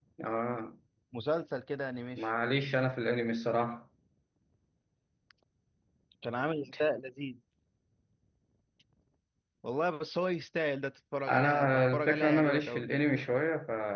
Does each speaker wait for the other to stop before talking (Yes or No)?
No